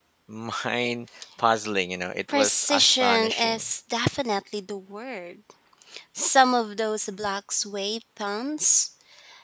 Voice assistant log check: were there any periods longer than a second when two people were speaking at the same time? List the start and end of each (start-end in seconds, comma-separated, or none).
2.3-3.6